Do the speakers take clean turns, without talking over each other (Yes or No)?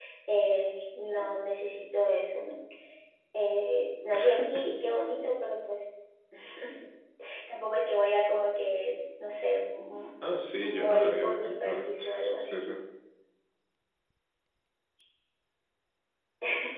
No